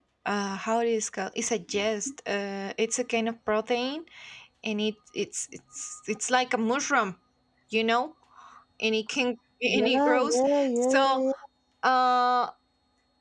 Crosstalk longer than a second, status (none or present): present